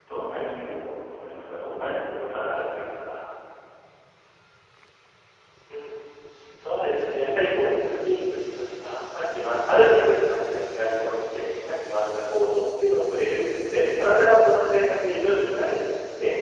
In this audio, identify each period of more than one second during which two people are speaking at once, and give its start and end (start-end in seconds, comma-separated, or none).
none